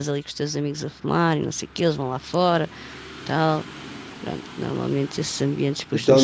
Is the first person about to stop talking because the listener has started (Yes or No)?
Yes